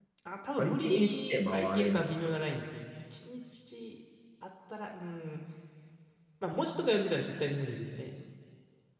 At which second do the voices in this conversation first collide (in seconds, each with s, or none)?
0.6 s